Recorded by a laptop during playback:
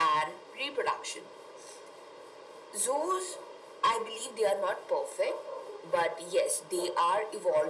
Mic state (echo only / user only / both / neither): echo only